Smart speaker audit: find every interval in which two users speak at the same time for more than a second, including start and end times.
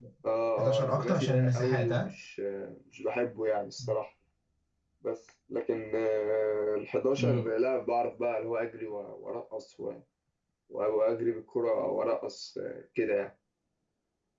0.6-2.1

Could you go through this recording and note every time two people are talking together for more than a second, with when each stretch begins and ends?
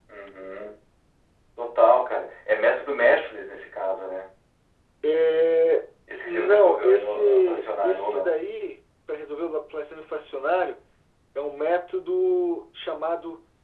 6.2-8.3

